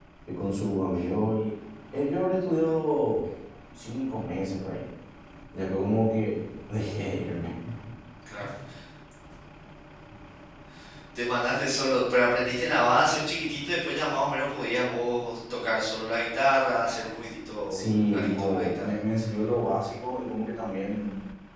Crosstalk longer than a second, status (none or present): present